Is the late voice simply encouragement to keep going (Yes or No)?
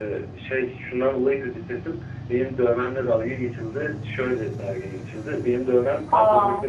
Yes